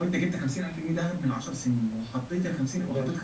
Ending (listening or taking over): listening